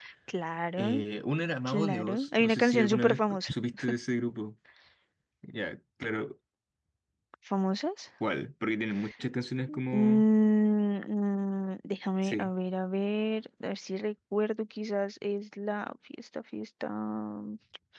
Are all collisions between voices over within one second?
No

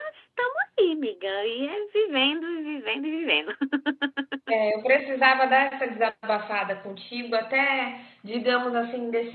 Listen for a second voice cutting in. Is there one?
No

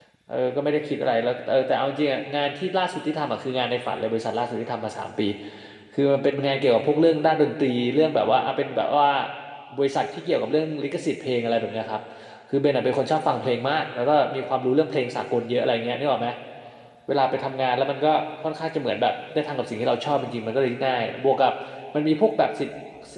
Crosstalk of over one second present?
No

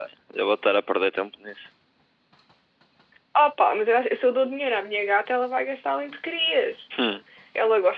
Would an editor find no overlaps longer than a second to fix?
Yes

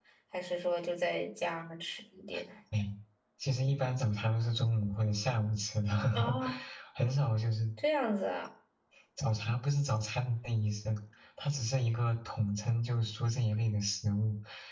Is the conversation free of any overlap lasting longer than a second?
Yes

